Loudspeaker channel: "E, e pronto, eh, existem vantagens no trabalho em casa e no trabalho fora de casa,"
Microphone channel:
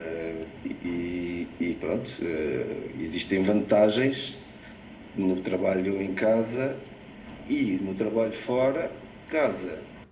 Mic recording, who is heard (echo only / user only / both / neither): echo only